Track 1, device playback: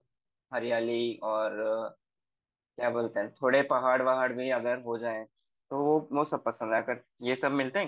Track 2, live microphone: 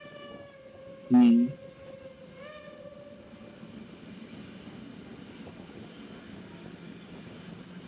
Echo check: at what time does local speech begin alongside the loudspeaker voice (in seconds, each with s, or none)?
1.1 s